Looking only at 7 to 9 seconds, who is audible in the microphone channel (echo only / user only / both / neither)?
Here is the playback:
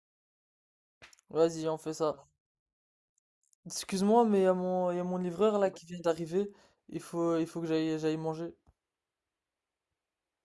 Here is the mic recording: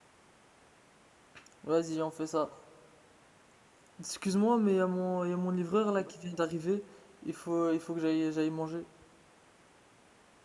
echo only